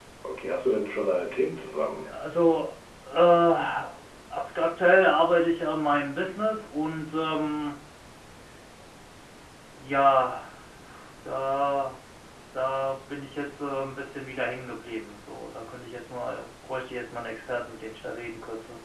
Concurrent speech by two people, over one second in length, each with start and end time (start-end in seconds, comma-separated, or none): none